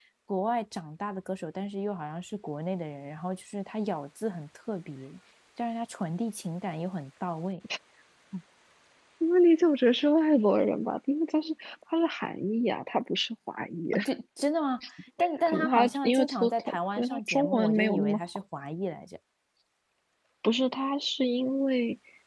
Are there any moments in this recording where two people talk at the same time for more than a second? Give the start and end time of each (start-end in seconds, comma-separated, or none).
15.5-18.2